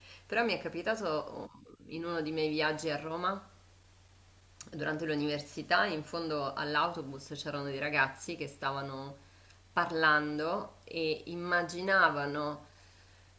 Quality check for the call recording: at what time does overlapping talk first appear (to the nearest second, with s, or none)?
none